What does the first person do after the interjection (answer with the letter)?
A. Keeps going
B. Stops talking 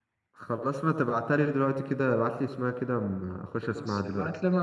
B